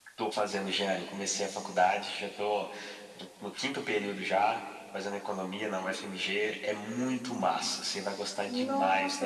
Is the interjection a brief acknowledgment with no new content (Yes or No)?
No